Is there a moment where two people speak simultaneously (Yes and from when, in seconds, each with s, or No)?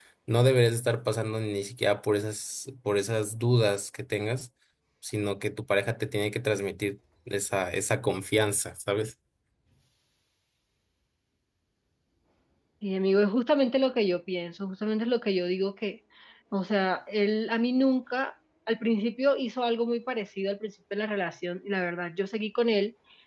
No